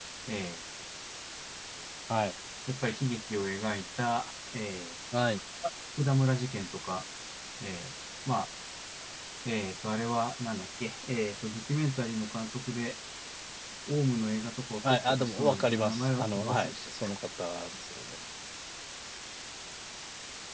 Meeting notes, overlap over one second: present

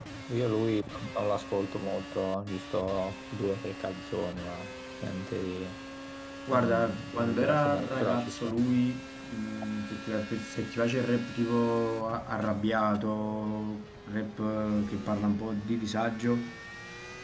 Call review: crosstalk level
present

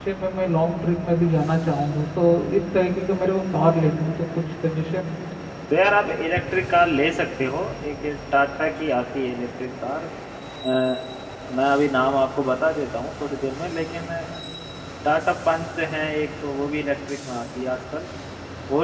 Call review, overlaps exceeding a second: none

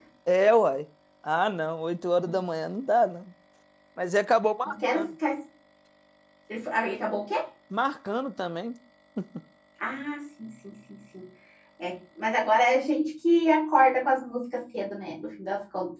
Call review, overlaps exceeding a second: none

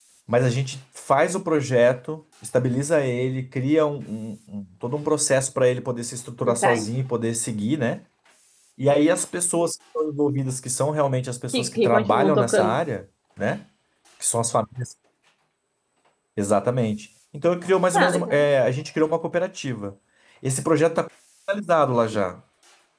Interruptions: present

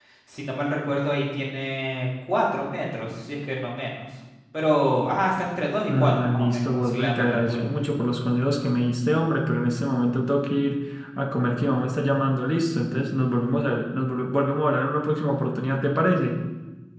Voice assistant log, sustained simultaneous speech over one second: present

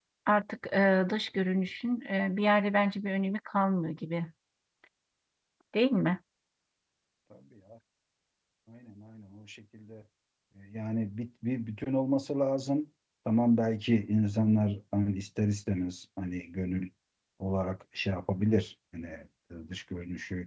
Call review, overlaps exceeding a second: none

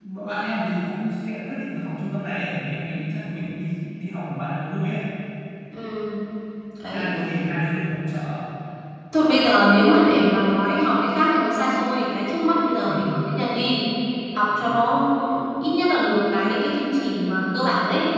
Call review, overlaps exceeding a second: none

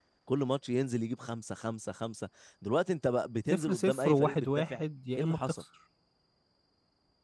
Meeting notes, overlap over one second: present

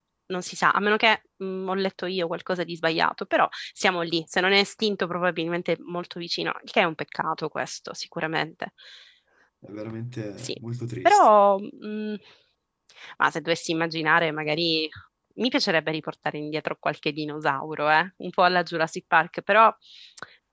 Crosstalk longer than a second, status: none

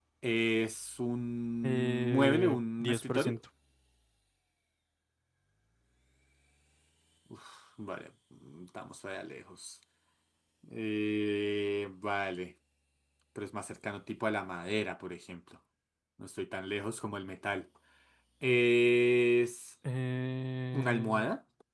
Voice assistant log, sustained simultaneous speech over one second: present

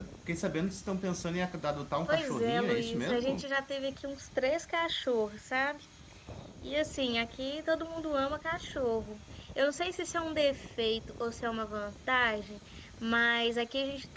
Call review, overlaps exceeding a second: present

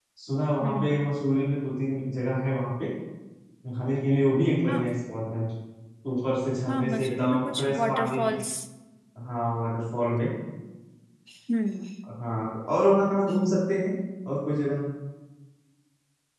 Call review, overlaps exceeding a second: present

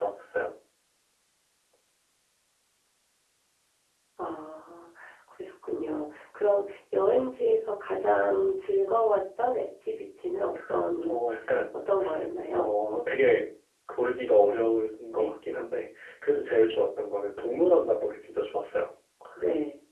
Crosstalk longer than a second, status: none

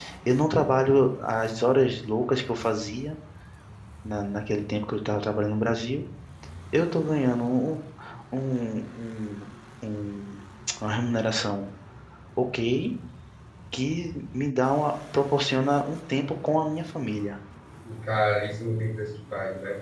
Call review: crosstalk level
none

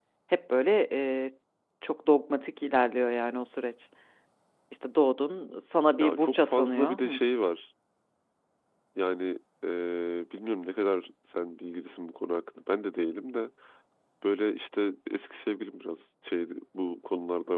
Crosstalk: present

